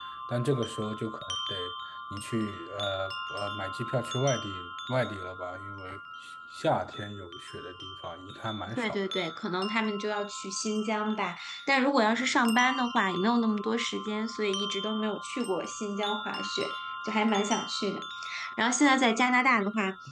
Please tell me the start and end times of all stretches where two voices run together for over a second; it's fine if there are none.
none

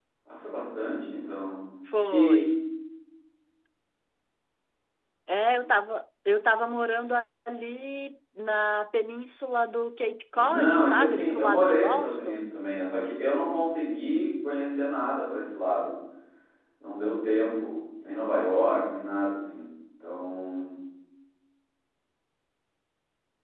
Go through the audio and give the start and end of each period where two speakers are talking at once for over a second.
10.3-12.5

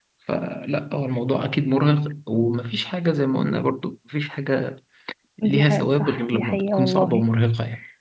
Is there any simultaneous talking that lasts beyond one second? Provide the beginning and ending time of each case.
5.4-7.2

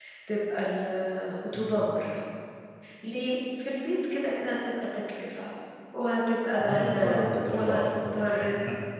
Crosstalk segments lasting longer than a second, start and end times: 6.6-8.5

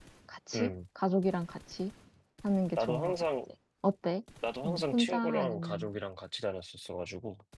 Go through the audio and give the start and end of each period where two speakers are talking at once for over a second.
4.6-5.9

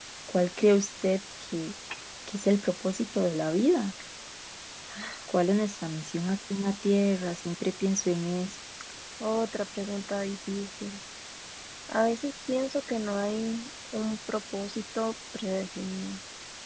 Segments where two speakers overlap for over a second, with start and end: none

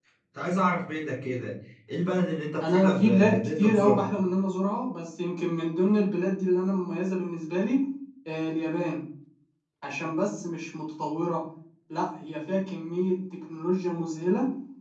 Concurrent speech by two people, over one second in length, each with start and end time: 2.6-4.1

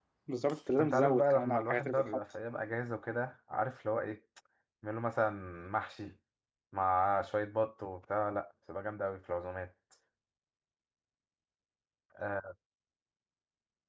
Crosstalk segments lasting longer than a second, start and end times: 0.8-2.2

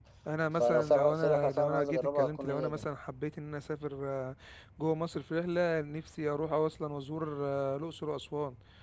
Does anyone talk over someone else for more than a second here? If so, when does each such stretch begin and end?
0.6-2.9

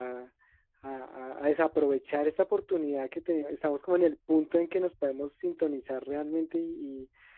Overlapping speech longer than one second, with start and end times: none

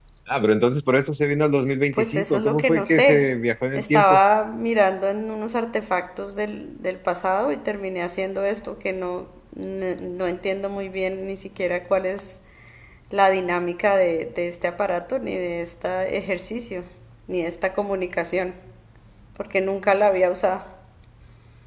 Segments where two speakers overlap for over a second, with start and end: 1.9-3.3

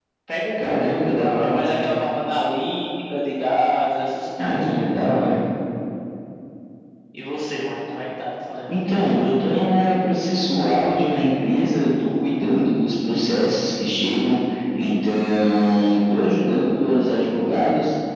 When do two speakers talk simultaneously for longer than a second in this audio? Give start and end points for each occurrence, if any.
none

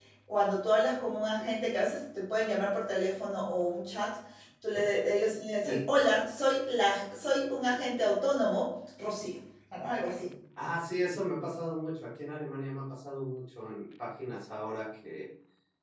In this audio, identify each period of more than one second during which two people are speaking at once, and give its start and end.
none

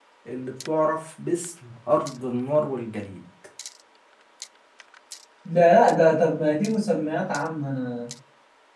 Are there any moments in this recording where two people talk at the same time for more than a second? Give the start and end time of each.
none

